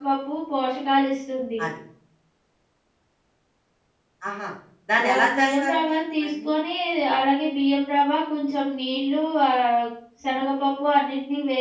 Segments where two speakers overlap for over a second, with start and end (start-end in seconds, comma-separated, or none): 5.1-6.5